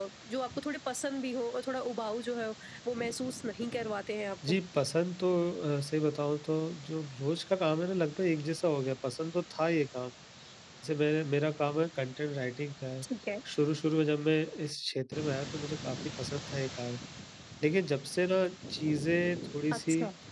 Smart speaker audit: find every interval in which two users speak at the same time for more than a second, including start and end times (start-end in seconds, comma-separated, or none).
none